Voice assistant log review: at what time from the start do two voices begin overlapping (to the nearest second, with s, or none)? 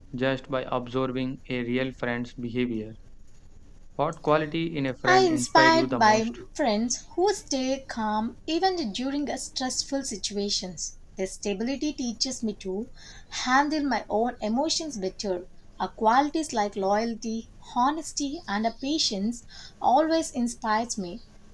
5 s